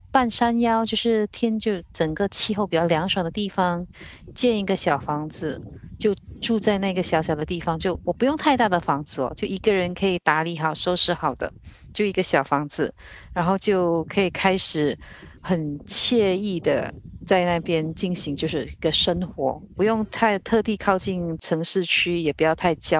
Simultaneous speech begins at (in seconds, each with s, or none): none